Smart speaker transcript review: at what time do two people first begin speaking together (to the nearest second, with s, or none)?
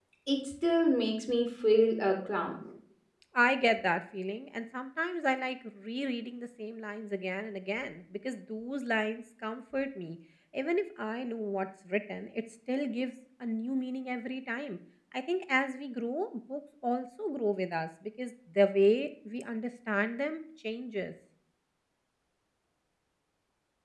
none